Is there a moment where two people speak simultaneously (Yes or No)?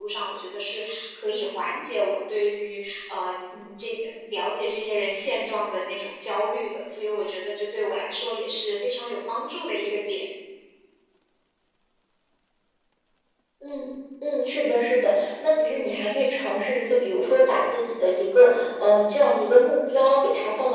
No